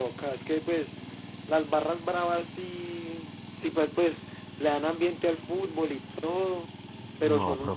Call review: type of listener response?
taking over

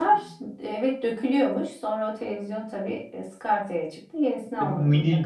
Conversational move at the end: taking over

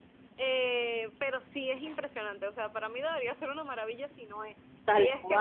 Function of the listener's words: taking over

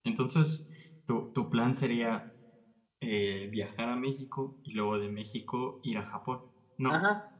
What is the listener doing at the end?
taking over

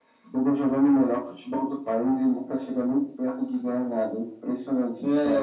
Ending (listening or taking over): taking over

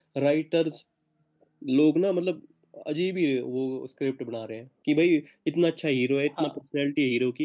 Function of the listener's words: listening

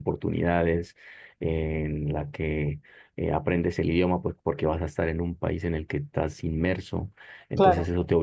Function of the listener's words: listening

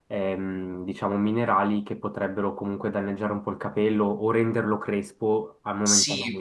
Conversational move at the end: taking over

